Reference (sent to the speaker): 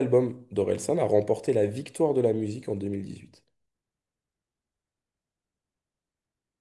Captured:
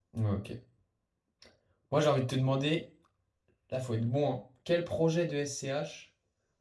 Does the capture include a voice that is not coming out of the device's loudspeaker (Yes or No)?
Yes